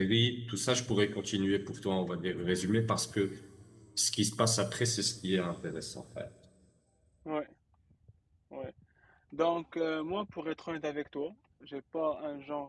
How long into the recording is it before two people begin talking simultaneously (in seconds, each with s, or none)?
none